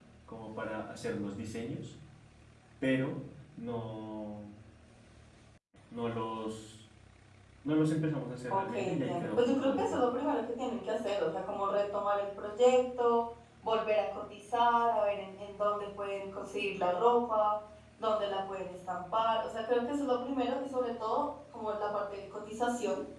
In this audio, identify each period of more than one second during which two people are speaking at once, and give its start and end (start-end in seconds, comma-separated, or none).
8.5-10.1